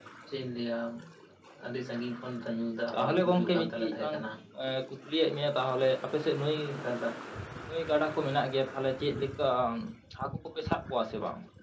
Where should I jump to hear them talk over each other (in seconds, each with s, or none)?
2.9 s